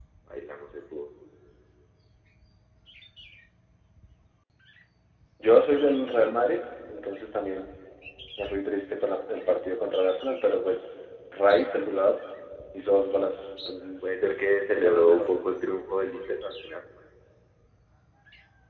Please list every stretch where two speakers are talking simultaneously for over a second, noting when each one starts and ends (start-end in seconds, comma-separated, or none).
14.0-15.3